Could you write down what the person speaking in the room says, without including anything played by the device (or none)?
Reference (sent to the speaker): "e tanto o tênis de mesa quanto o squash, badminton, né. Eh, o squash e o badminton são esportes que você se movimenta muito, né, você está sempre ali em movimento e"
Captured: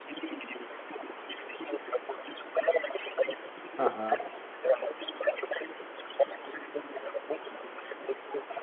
Aham.